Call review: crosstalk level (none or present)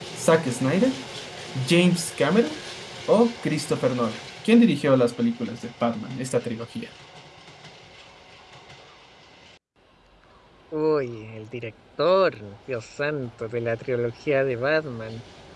none